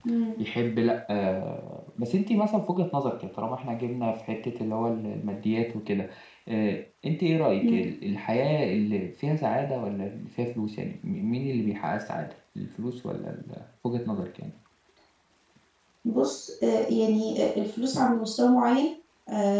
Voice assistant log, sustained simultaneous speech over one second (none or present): none